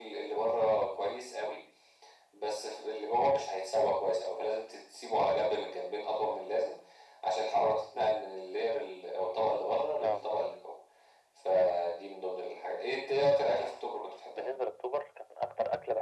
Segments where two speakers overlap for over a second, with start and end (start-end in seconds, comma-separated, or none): none